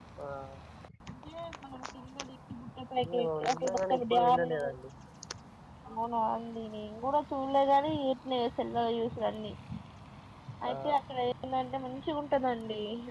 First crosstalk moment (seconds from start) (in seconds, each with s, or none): 3.2 s